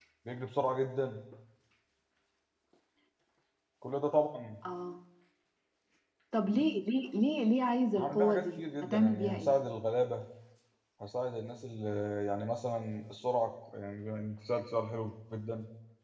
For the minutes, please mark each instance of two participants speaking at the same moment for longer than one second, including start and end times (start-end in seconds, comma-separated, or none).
8.0-9.5